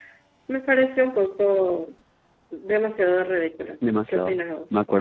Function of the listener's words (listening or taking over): taking over